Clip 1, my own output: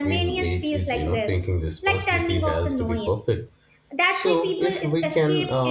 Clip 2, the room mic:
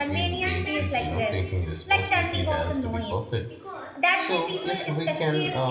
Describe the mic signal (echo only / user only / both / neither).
both